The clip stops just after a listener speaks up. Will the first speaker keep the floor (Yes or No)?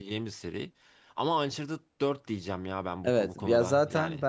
No